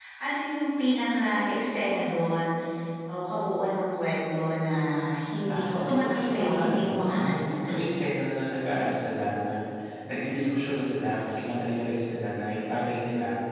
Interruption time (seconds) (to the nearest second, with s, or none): 5 s